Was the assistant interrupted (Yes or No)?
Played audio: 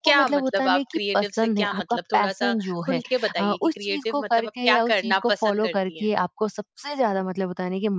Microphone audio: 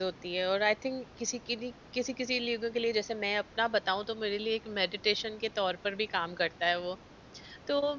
Yes